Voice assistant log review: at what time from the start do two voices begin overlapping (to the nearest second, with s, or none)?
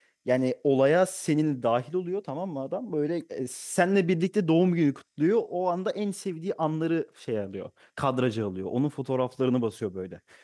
none